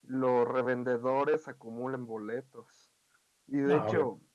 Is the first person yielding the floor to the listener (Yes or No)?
No